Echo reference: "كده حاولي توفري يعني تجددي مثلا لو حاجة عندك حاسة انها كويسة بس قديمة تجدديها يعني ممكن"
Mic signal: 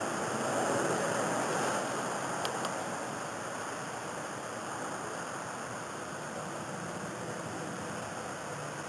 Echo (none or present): none